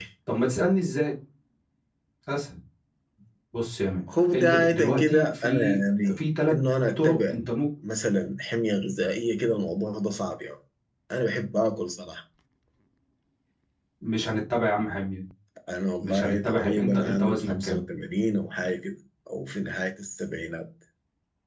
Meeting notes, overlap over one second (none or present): present